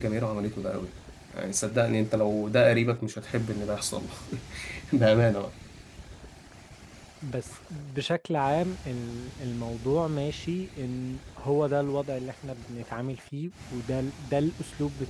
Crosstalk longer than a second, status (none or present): none